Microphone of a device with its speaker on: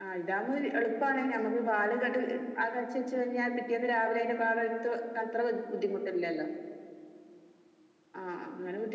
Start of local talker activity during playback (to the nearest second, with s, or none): none